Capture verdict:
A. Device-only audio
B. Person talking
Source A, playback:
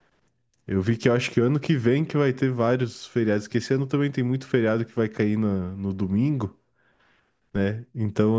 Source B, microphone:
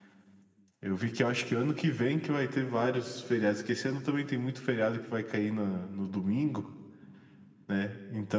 A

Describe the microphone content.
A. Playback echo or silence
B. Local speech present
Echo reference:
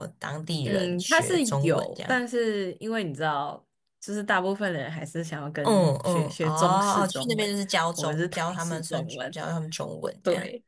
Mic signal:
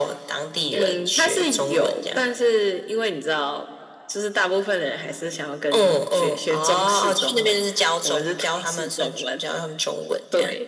A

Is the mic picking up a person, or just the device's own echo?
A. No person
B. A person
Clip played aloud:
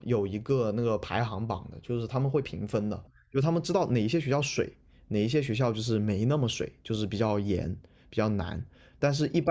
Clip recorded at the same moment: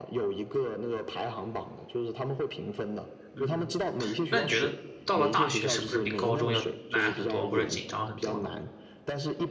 B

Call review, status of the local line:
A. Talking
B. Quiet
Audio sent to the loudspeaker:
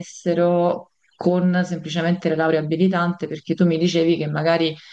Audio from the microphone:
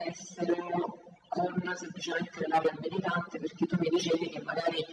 B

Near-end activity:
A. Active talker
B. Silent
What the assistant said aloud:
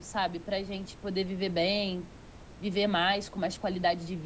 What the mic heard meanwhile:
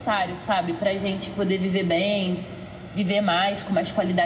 B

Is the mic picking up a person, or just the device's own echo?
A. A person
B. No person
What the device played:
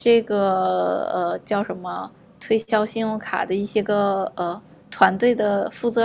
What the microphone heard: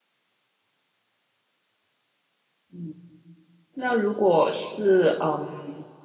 A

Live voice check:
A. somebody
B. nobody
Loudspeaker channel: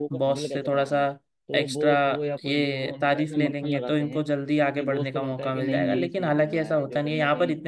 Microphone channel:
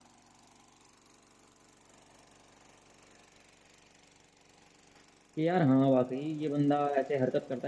A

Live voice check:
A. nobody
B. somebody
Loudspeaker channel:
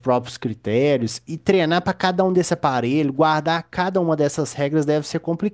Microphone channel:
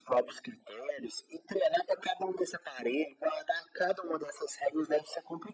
A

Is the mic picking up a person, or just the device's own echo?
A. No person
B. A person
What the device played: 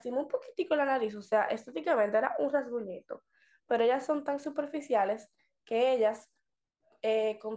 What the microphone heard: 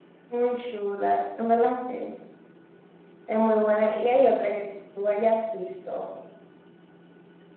B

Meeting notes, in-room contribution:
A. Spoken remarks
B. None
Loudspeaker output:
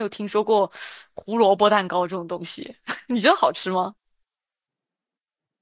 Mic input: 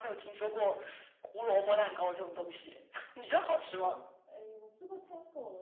A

